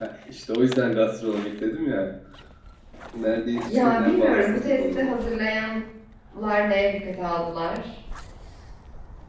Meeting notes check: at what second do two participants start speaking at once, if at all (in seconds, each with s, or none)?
3.7 s